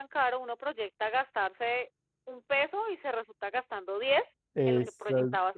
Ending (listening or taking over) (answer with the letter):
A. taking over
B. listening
A